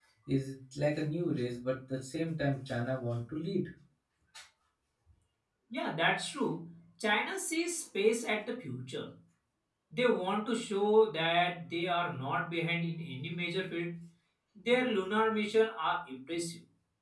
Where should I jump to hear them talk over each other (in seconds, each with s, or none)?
none